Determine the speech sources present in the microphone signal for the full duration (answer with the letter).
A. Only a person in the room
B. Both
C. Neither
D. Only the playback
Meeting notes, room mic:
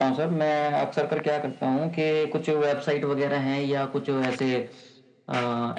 D